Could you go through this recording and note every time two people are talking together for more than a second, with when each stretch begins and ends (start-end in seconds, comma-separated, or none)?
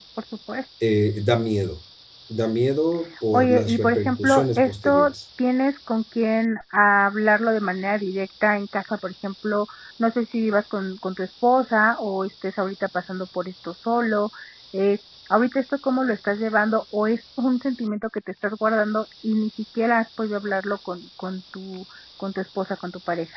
3.3-5.1